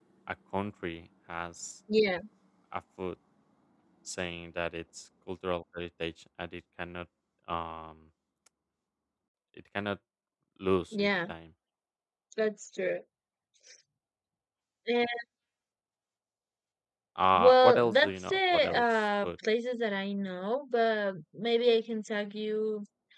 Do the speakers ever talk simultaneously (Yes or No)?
Yes